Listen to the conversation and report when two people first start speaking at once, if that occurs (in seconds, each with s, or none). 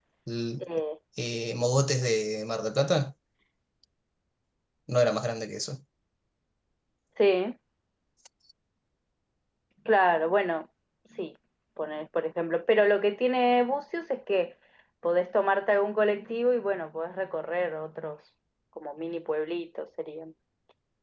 none